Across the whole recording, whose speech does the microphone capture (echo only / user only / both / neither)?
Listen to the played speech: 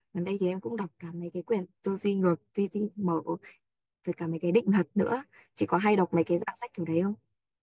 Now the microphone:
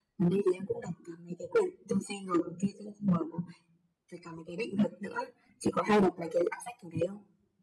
echo only